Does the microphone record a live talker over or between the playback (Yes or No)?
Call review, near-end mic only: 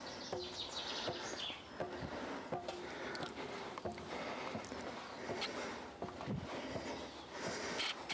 No